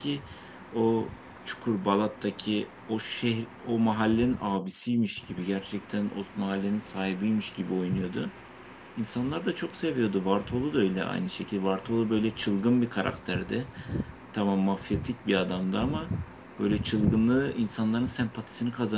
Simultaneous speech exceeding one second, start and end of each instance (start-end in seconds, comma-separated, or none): none